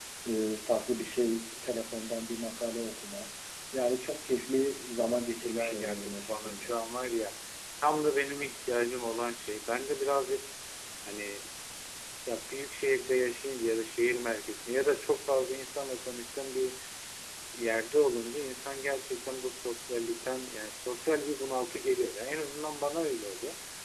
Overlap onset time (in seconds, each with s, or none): 5.4 s